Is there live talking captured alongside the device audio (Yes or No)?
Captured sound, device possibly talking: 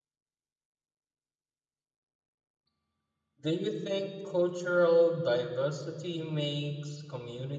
Yes